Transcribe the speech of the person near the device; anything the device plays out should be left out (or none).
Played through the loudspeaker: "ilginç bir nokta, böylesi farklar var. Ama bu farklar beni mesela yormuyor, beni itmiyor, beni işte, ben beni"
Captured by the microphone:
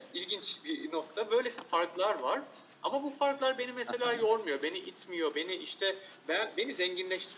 Aha.